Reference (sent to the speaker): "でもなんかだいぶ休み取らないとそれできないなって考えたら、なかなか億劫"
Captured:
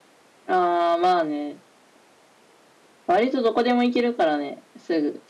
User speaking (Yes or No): Yes